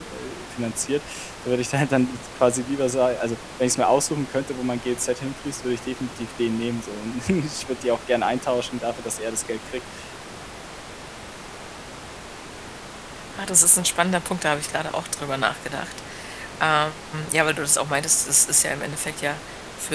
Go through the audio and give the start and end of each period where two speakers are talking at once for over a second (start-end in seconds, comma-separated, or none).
none